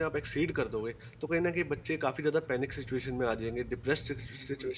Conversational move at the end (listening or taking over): taking over